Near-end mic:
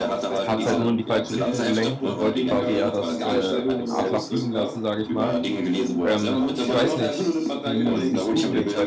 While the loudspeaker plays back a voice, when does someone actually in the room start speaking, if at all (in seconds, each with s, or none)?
0.4 s